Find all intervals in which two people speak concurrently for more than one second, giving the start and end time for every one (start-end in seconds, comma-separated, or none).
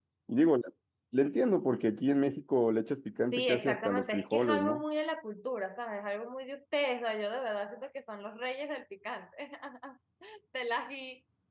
3.3-4.8